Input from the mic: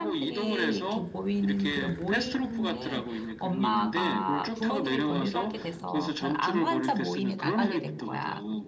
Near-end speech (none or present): present